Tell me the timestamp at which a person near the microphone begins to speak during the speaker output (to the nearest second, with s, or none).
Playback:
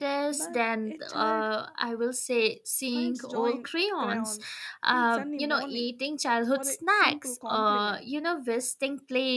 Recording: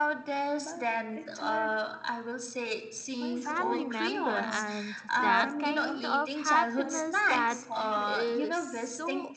3 s